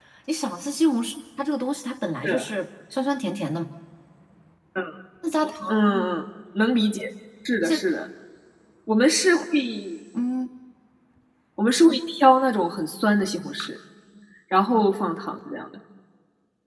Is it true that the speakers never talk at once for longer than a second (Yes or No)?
Yes